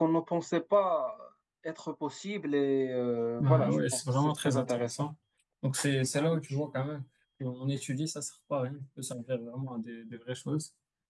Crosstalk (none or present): present